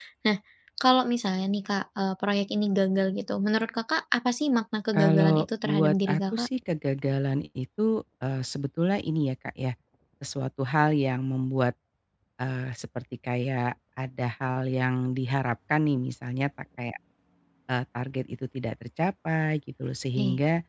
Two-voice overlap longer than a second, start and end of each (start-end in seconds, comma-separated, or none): 4.9-6.5